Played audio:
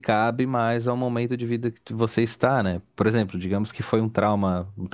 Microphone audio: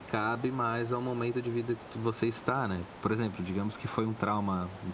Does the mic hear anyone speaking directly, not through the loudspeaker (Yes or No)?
No